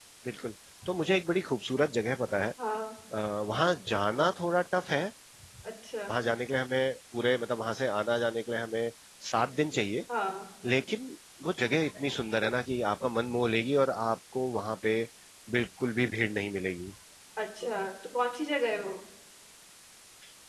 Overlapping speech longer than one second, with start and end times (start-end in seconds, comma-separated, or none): none